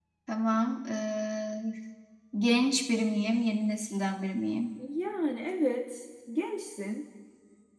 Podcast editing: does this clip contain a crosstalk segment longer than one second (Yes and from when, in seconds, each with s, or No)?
No